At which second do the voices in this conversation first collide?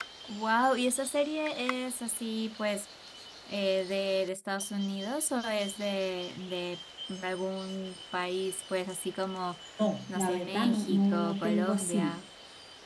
10.1 s

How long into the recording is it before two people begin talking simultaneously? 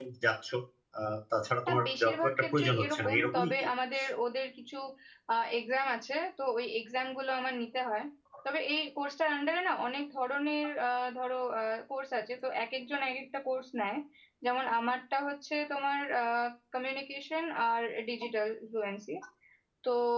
1.7 s

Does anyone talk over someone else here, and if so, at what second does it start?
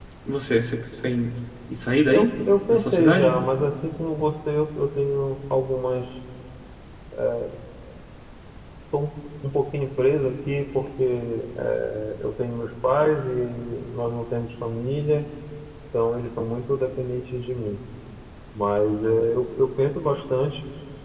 2.1 s

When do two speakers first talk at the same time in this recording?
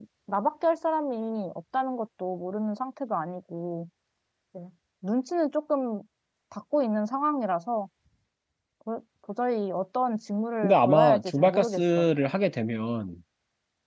10.6 s

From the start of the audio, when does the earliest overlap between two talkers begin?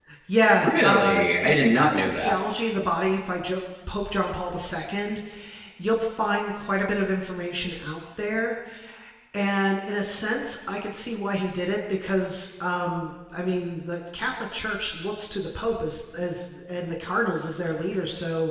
0.6 s

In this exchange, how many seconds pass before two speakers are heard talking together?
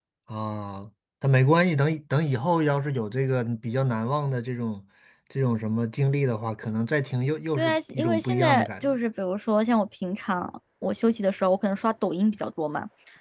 7.6 s

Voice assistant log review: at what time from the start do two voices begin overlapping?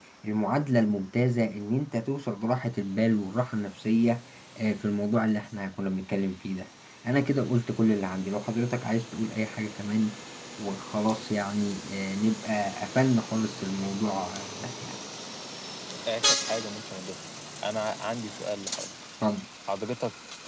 none

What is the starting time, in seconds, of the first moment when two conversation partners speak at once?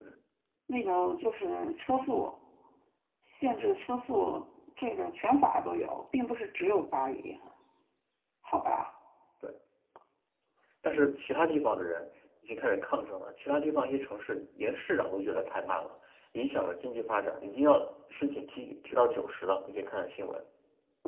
none

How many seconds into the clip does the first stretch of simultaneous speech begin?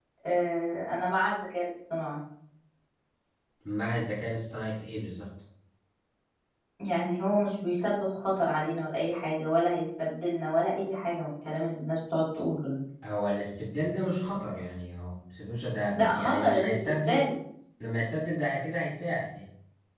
16.0 s

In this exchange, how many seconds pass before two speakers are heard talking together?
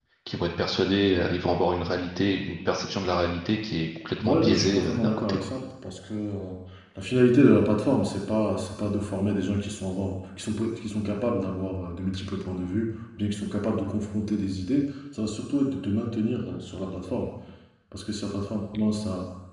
4.2 s

